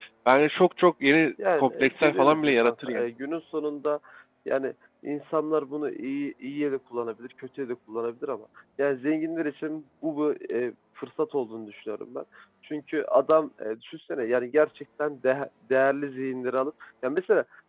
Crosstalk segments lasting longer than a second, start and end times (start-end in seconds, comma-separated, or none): 1.6-3.0